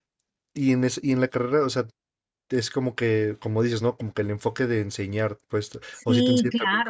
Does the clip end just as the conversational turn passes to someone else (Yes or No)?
Yes